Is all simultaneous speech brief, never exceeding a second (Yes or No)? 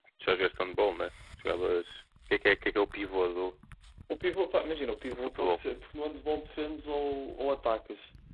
Yes